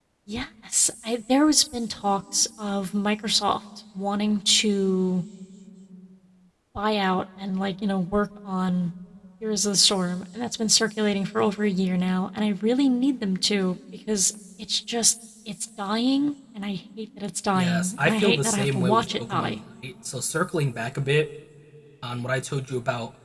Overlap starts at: 17.6 s

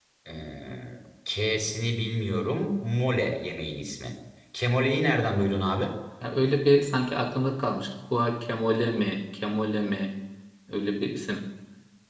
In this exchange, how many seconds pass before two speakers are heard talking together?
none

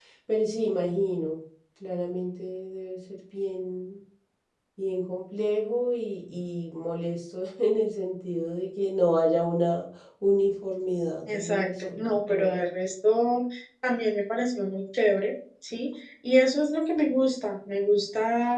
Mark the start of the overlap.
11.3 s

